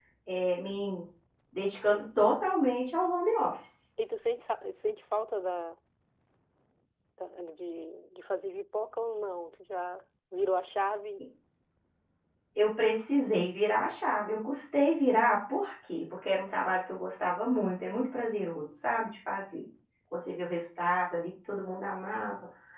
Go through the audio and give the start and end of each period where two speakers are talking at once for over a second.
none

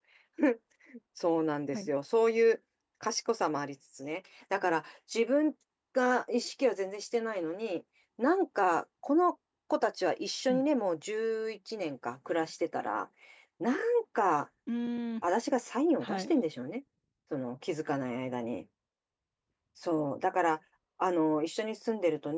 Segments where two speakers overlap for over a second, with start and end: none

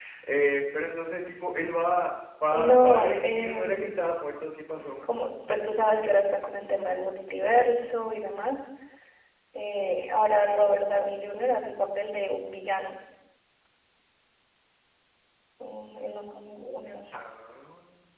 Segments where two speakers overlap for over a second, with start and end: 2.5-4.0

